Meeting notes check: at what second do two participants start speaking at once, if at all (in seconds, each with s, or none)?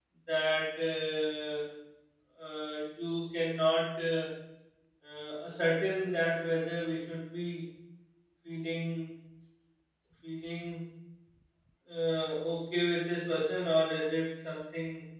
none